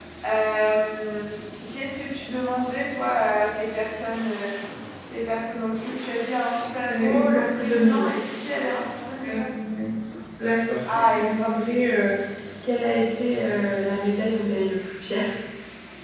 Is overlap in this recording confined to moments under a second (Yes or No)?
No